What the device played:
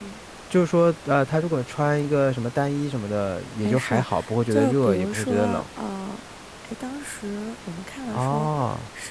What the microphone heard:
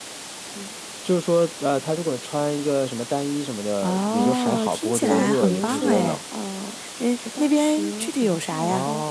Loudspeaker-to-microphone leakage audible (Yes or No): Yes